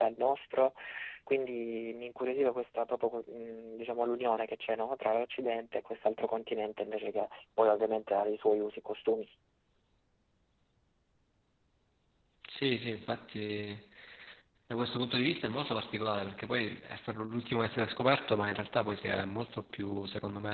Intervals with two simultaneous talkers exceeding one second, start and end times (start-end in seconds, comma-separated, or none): none